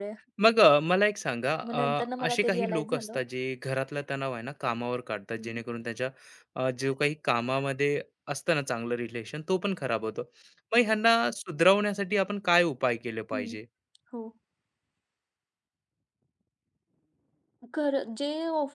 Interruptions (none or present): present